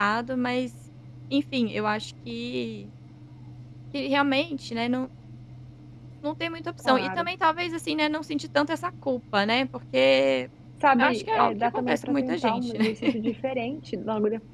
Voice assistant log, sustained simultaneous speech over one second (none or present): present